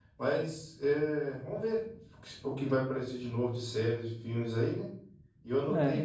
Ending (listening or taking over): listening